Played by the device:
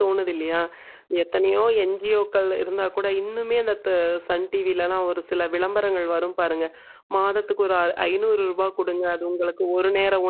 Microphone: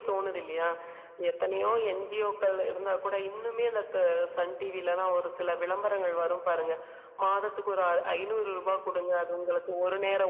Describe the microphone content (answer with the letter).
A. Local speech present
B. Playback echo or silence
B